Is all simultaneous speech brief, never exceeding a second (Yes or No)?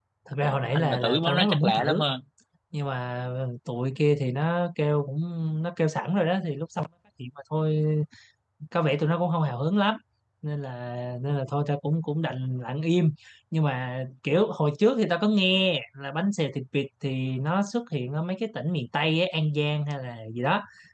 No